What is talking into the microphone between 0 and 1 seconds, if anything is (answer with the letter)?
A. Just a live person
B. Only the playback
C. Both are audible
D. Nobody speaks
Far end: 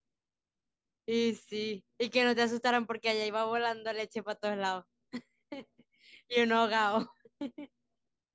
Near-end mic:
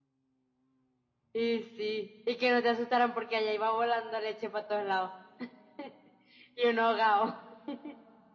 D